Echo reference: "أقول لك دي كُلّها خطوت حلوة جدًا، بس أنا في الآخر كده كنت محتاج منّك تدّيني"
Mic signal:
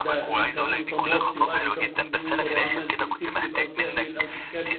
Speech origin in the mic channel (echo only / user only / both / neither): both